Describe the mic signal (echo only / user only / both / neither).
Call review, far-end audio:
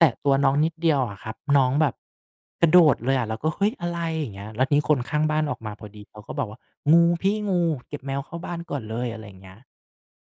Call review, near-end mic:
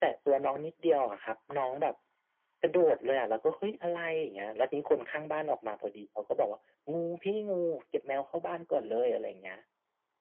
echo only